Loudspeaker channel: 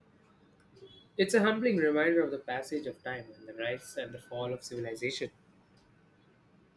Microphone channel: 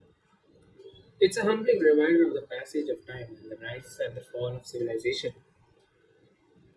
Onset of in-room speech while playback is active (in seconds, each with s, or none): none